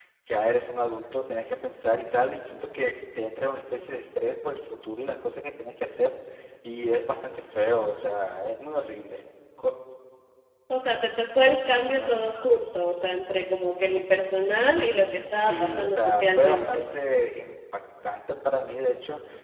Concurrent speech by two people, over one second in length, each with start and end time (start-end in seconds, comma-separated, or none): 15.3-16.8